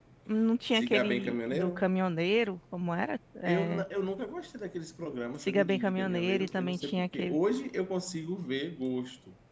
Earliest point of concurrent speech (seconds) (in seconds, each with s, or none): 0.7 s